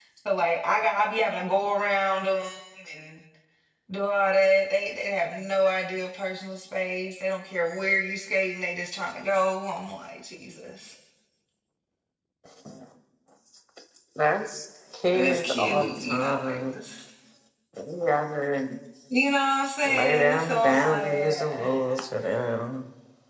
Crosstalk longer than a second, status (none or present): present